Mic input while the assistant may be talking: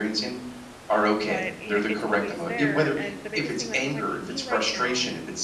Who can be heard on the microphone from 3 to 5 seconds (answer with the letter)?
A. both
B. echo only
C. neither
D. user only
A